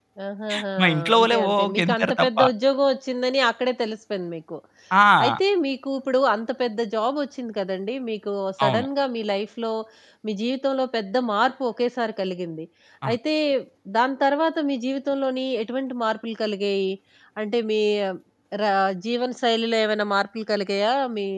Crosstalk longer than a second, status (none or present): present